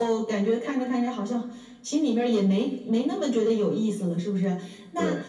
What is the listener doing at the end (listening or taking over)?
listening